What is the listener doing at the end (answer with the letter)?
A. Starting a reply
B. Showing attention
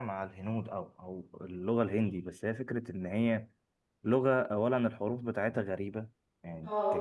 B